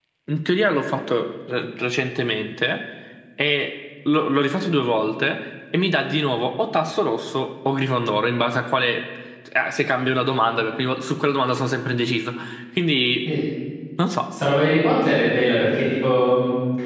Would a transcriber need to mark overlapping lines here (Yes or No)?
No